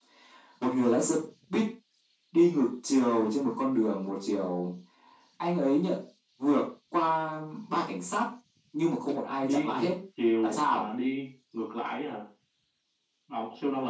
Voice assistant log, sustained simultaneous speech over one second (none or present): none